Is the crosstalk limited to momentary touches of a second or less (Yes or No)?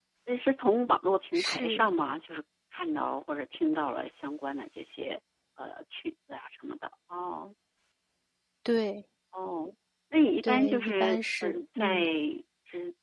No